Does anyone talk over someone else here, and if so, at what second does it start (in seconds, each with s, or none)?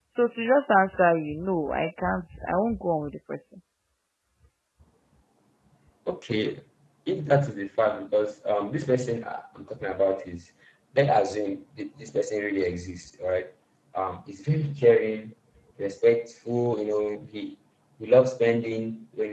none